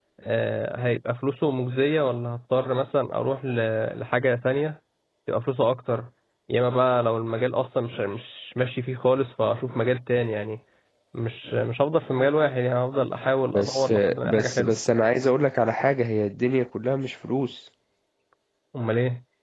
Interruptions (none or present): present